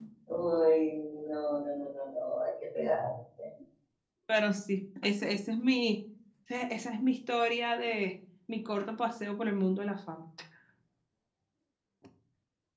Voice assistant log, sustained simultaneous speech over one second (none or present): none